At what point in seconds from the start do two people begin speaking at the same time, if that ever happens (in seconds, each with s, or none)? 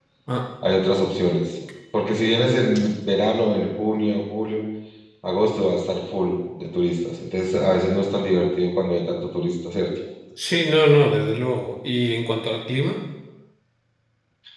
none